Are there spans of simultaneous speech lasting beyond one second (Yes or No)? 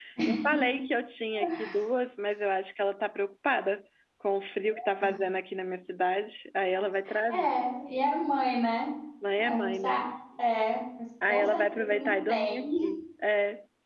Yes